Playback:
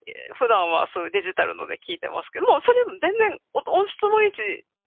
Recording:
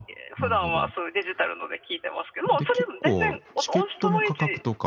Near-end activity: present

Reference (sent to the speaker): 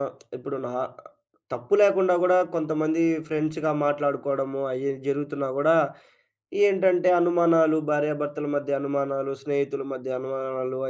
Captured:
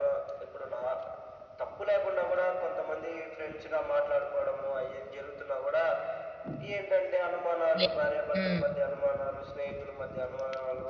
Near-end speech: present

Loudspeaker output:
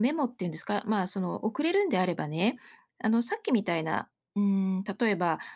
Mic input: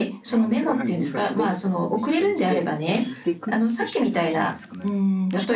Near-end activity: present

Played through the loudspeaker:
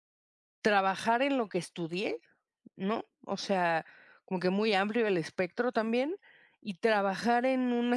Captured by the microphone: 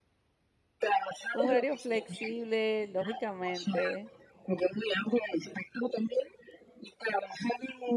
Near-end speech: present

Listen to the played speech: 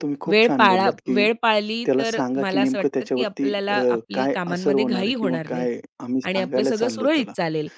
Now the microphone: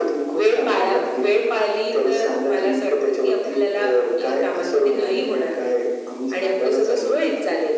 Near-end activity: none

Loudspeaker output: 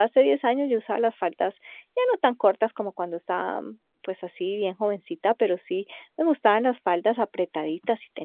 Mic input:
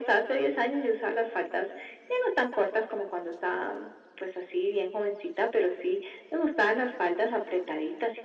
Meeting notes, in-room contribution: none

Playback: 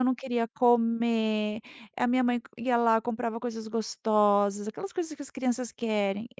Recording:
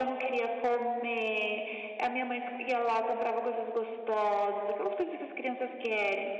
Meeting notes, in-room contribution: none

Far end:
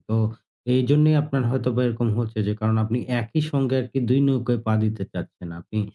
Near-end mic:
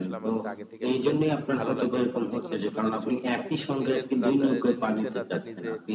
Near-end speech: present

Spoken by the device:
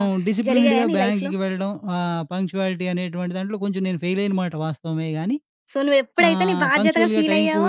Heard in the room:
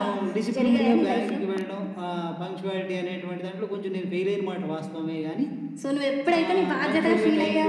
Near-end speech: none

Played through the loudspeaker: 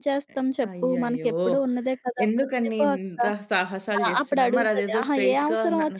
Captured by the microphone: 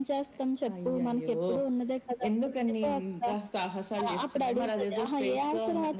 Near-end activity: none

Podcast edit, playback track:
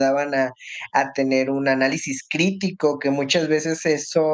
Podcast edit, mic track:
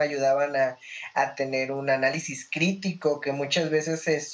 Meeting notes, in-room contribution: none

